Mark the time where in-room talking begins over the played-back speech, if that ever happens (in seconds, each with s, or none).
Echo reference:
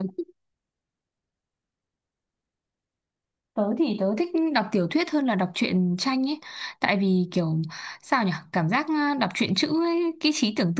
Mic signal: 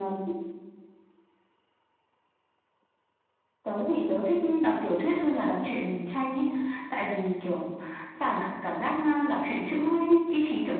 none